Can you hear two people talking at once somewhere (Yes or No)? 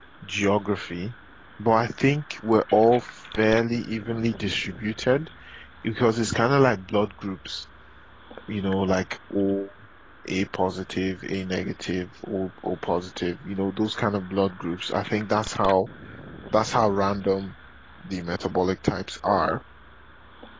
No